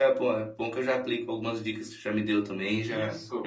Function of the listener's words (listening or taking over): taking over